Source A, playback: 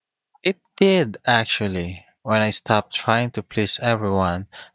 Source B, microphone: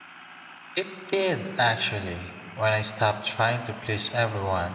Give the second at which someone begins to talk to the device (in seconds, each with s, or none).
none